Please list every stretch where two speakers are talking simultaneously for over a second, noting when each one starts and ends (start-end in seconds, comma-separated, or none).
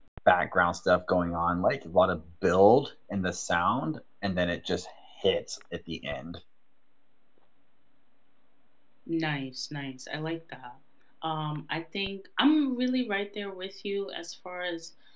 none